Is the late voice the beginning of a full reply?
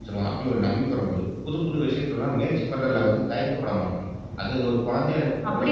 Yes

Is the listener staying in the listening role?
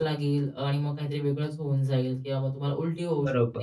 No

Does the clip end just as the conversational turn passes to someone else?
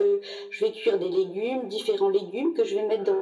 No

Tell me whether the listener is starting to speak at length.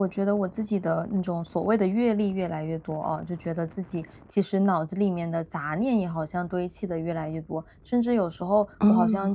No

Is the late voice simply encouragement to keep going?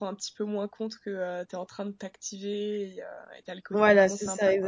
No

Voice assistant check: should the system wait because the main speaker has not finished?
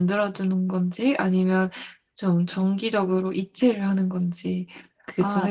No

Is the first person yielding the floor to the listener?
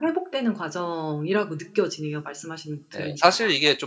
Yes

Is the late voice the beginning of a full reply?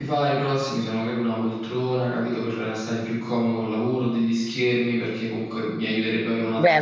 Yes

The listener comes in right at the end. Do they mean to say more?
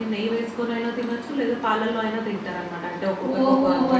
Yes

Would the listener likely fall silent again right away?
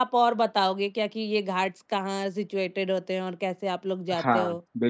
No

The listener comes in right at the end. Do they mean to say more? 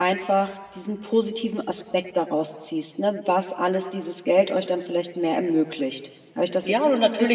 Yes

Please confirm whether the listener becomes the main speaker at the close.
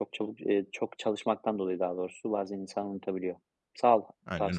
Yes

